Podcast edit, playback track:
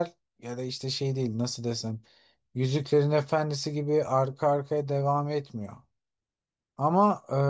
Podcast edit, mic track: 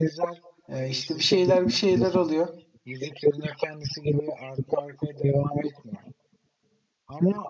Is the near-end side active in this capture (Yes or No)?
Yes